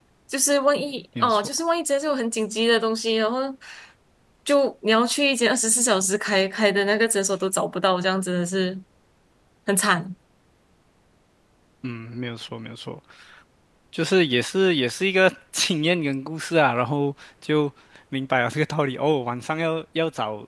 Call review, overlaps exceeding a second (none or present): none